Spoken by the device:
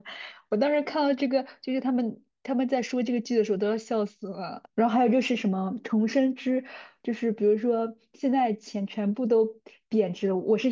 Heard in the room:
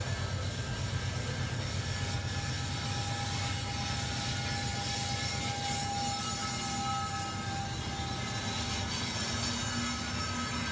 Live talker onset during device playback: none

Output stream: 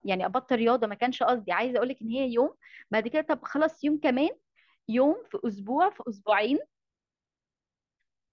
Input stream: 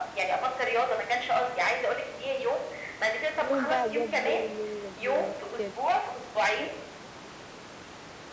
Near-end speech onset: 3.4 s

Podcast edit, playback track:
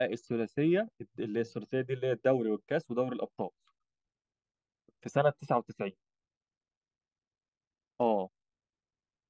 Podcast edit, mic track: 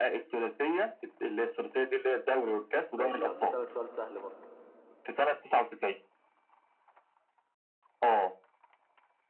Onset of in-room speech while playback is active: 3.0 s

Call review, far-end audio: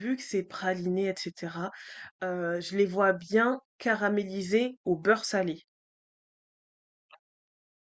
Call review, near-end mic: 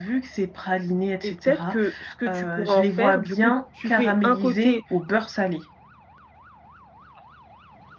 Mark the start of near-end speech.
1.2 s

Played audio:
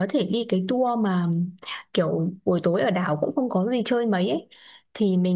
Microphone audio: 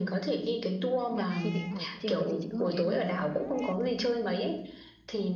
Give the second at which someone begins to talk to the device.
1.1 s

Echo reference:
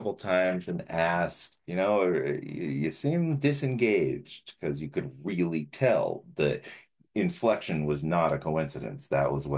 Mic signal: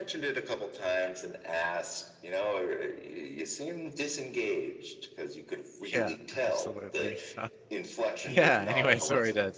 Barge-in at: 5.9 s

